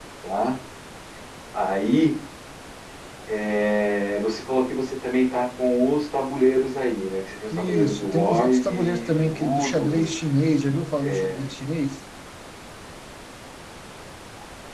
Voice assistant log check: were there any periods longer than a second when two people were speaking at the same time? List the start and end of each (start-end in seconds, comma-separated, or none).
7.6-10.1